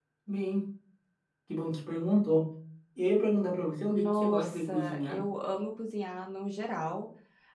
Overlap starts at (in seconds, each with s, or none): 3.9 s